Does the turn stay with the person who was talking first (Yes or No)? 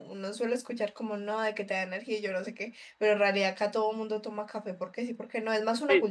No